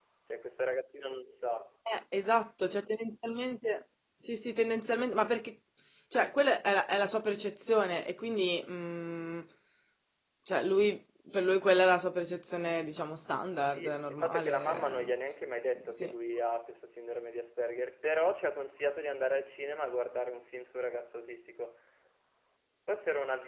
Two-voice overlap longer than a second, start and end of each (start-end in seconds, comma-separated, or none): 13.7-15.1